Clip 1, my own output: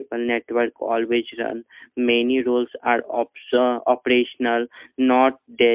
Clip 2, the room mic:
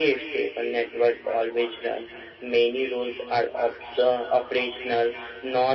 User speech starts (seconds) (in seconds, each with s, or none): none